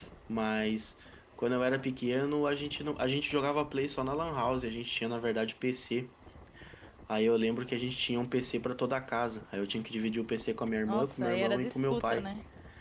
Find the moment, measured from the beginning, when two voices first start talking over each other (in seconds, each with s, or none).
10.8 s